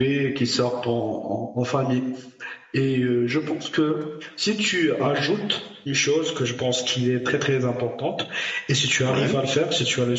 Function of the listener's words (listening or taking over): listening